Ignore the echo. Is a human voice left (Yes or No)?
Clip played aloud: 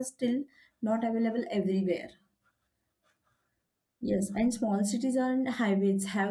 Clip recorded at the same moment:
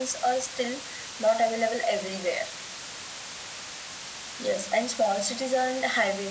No